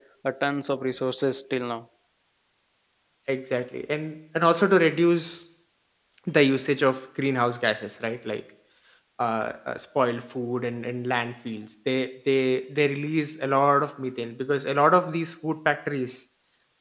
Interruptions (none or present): none